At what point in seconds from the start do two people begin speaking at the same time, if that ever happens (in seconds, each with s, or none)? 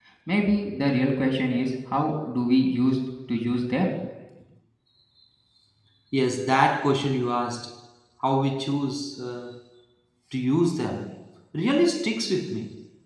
none